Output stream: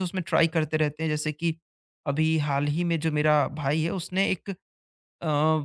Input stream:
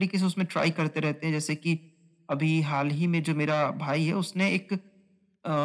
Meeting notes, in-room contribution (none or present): none